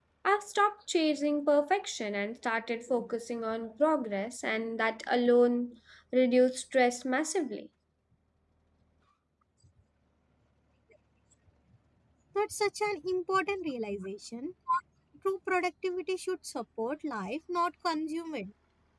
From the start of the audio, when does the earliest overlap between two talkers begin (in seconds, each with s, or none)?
none